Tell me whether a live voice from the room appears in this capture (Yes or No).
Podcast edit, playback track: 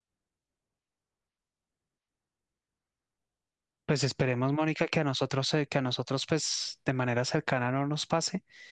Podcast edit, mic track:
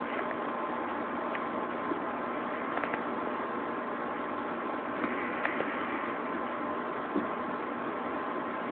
No